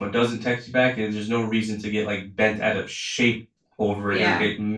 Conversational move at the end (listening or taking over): listening